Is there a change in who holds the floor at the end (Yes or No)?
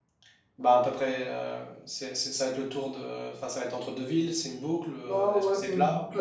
Yes